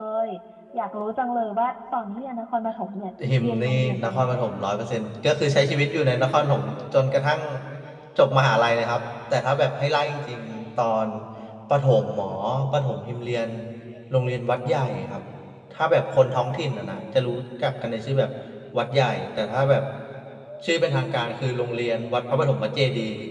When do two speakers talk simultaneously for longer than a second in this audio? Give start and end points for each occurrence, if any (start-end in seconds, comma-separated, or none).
3.4-4.6